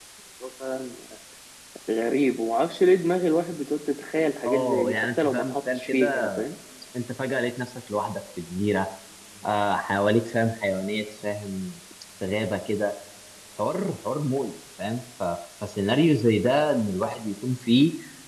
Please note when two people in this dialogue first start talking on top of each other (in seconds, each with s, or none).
4.5 s